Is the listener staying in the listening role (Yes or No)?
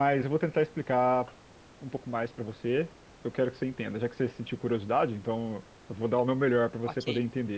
No